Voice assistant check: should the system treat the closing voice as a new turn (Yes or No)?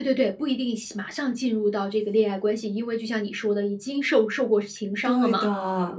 Yes